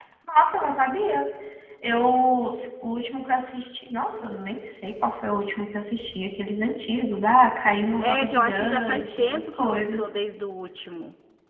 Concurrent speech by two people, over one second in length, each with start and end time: 8.0-10.1

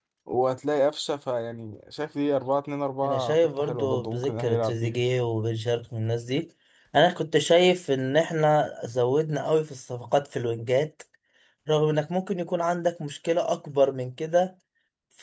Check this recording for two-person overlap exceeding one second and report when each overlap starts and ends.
3.0-5.0

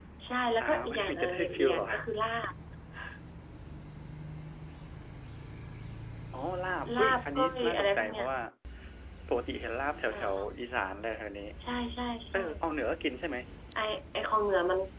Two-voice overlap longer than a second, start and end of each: 0.6-1.9, 6.9-8.2

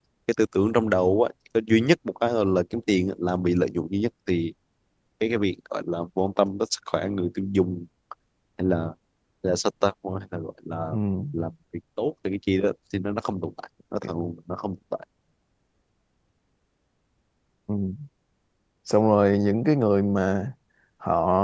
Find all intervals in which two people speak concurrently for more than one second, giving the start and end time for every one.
none

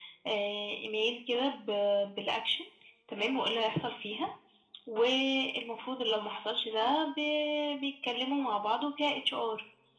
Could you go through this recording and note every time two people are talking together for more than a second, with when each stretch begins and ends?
none

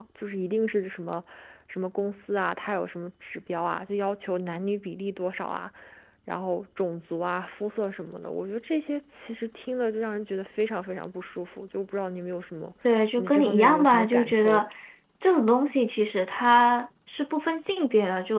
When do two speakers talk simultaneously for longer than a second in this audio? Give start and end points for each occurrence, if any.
13.2-14.6

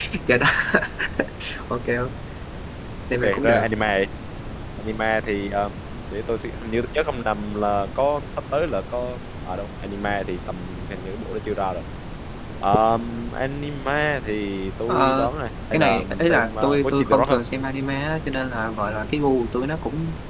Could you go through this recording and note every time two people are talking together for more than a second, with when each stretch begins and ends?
15.7-17.4

